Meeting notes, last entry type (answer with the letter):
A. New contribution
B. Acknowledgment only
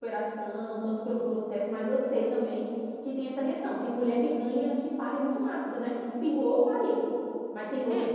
A